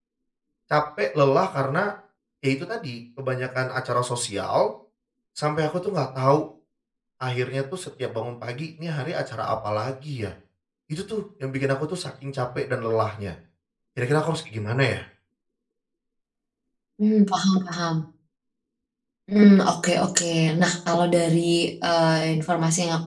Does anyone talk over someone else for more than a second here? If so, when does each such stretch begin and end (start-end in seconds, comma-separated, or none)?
none